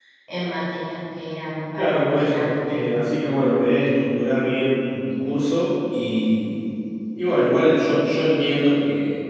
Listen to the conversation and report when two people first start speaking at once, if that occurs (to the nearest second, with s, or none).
2 s